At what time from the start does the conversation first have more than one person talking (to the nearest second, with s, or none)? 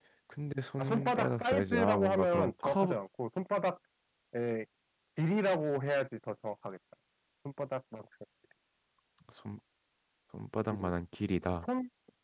1 s